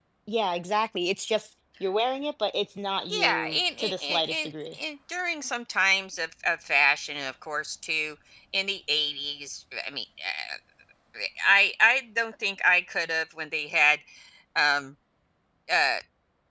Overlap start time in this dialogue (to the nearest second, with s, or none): 3 s